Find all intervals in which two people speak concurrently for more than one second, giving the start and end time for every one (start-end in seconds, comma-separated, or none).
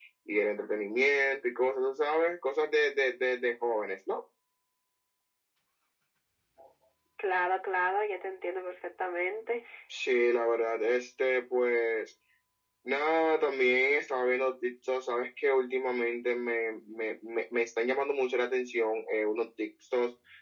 none